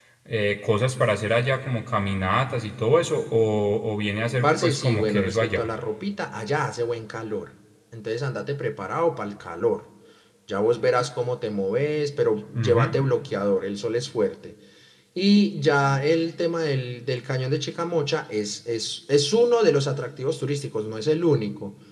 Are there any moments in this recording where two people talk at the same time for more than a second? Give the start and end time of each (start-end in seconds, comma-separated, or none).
4.4-5.7